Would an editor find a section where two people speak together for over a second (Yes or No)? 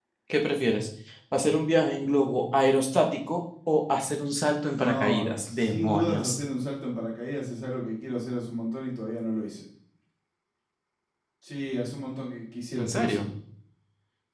Yes